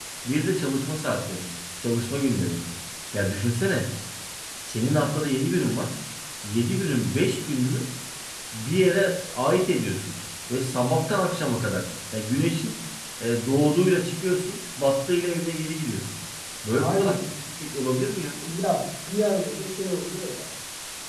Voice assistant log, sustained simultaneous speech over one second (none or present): none